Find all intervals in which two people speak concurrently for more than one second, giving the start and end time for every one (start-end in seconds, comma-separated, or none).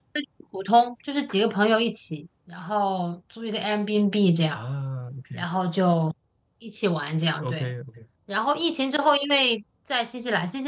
none